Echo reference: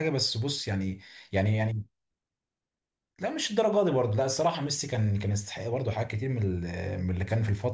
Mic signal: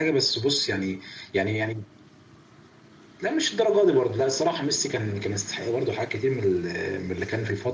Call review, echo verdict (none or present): present